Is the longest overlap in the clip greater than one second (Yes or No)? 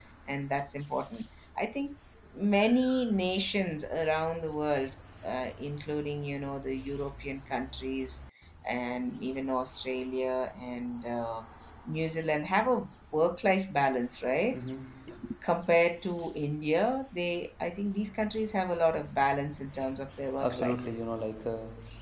No